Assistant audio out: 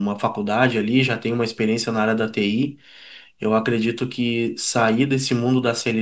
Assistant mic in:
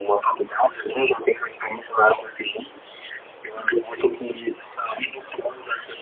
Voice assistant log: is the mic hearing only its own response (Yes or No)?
Yes